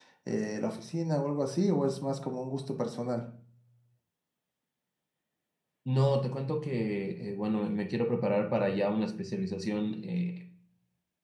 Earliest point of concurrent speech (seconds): none

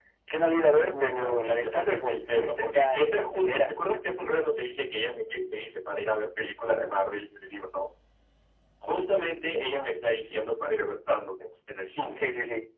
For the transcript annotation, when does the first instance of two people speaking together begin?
0.9 s

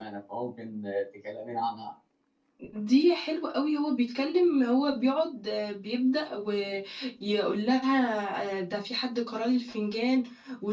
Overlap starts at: none

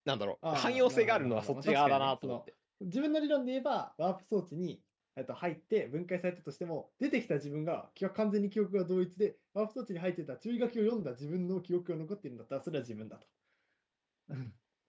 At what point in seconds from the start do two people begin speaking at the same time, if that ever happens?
0.5 s

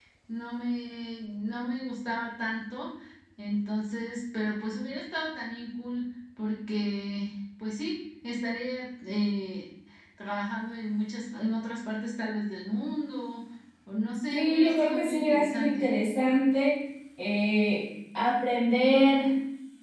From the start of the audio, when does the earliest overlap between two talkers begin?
14.3 s

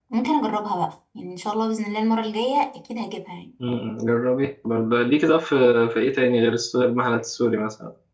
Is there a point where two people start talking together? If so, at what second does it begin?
none

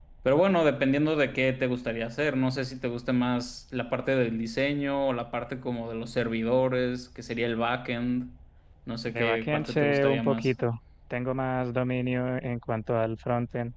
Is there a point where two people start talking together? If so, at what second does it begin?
9.1 s

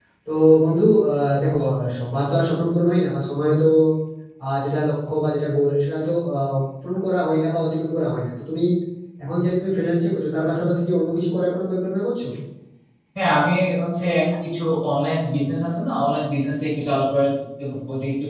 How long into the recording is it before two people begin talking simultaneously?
none

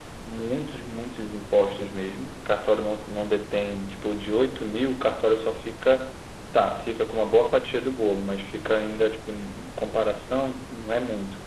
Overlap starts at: none

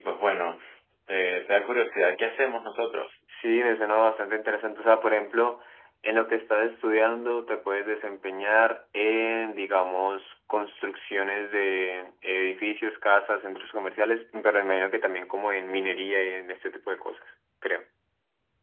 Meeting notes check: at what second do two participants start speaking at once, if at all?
none

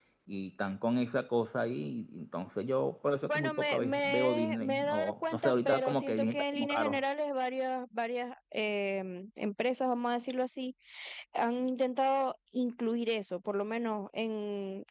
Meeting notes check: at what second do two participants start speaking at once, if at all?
3.2 s

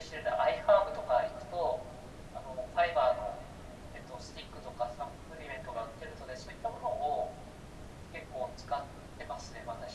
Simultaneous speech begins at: none

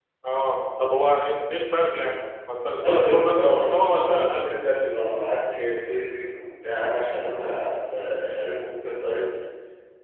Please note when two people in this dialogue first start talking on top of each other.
2.8 s

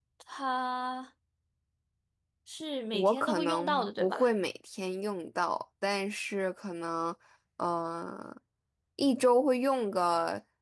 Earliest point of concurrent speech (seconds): 2.9 s

